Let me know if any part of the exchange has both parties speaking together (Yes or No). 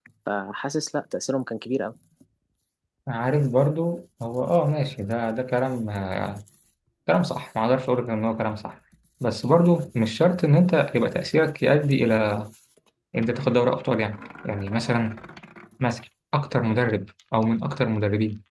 No